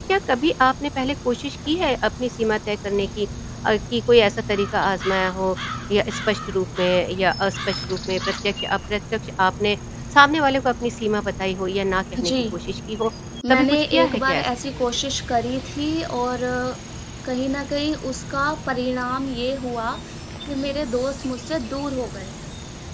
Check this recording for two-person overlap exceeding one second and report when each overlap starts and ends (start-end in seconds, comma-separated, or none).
13.5-14.8